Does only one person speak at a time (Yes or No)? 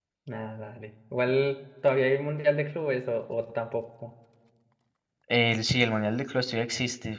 Yes